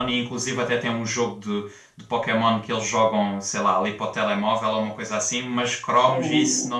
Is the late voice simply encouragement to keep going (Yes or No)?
Yes